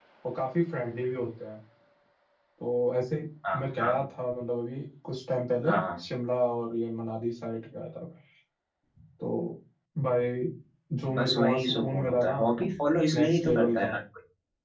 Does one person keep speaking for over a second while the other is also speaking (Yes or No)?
Yes